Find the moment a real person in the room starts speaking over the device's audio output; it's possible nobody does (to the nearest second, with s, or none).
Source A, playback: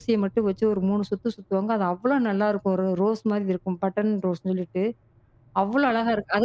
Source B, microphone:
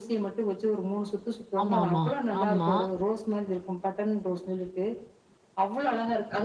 2 s